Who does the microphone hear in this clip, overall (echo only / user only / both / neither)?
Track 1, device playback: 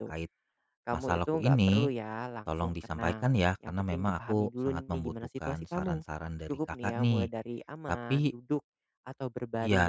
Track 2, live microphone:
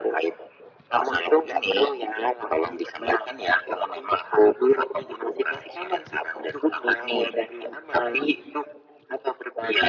echo only